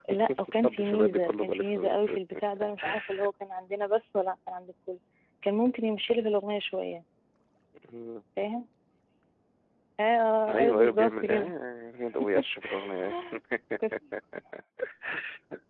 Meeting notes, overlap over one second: present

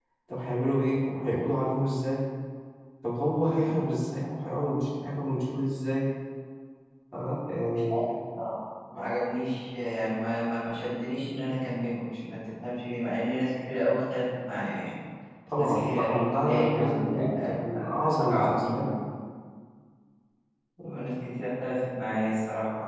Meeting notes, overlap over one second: present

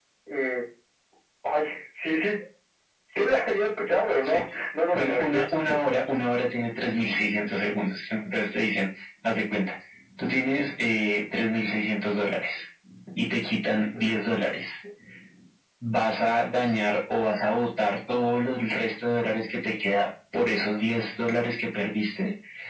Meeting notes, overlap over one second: none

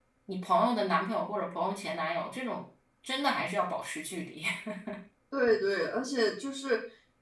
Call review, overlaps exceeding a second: none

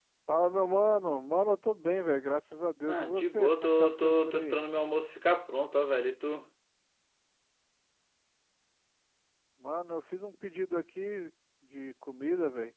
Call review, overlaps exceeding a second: present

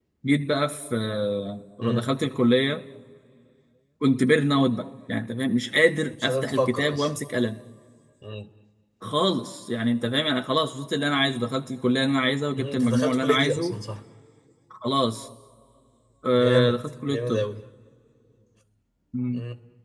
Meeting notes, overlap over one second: present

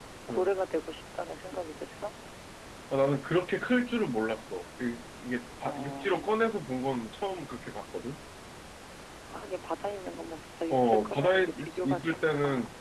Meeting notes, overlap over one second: present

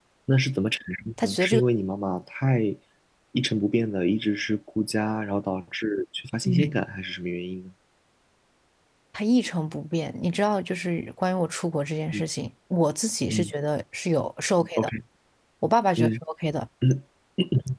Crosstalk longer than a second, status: none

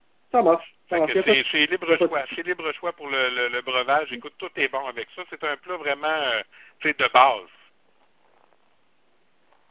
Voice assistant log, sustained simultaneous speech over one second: present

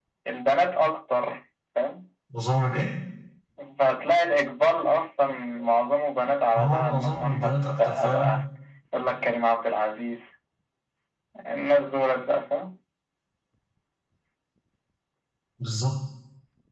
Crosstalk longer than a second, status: present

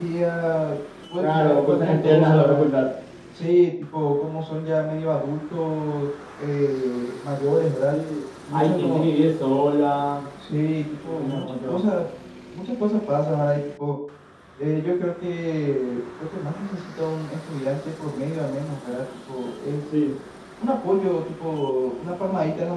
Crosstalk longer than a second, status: present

